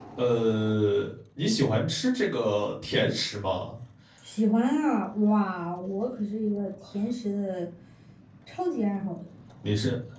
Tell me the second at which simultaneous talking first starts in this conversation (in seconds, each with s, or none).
none